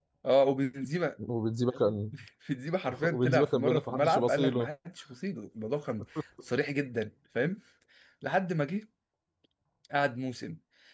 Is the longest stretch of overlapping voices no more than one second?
No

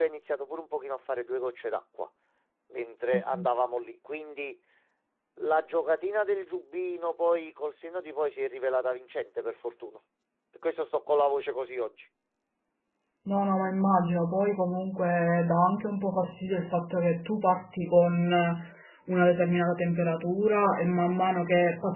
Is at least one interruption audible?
No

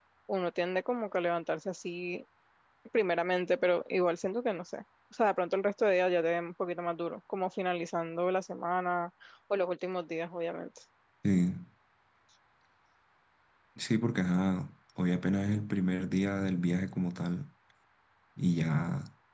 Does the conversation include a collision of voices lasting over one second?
No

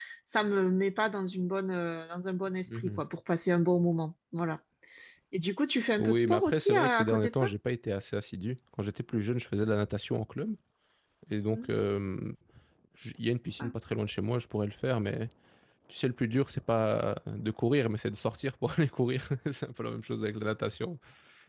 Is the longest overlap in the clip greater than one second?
Yes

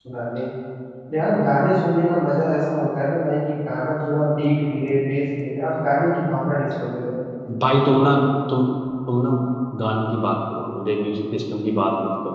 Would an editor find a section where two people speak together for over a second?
No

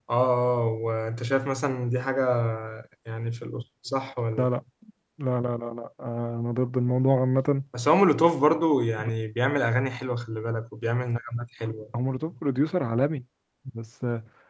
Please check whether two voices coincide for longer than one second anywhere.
No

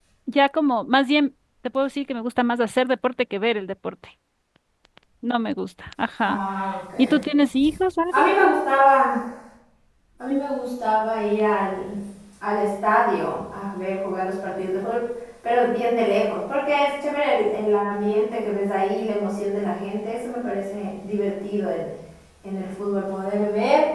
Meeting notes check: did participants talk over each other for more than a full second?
No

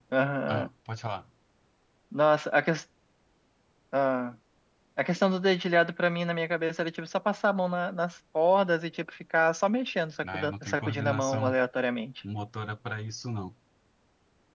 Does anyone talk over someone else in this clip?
Yes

